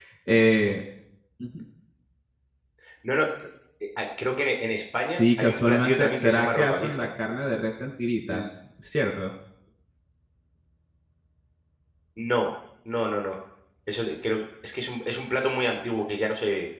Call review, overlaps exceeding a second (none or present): present